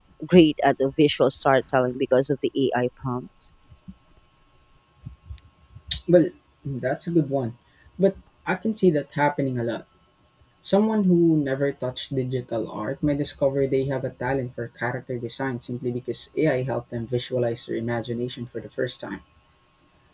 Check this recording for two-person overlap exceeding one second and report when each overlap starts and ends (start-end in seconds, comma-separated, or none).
none